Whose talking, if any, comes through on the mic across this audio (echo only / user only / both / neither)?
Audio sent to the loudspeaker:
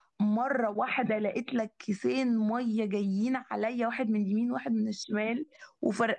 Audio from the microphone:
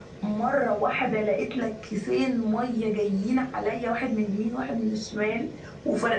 echo only